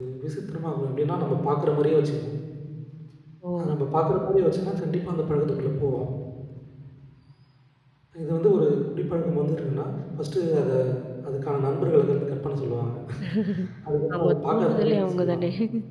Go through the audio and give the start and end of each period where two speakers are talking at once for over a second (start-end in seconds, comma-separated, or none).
14.2-15.4